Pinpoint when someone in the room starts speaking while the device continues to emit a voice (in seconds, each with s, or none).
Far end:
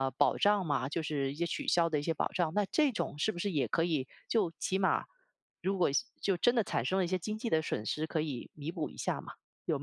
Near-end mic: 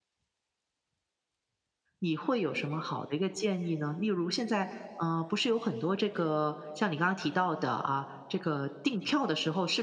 2.0 s